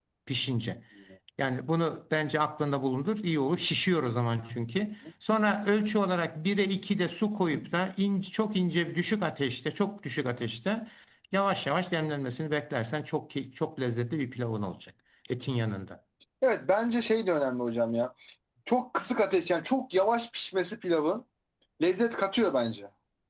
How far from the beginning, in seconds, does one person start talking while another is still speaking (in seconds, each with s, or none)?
none